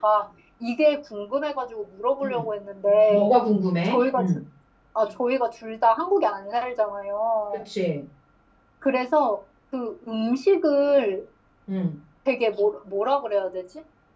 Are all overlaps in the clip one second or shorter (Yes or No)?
Yes